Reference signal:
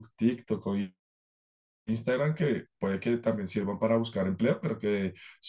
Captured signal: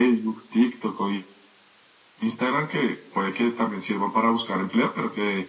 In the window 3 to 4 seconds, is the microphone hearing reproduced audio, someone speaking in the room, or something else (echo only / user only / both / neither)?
echo only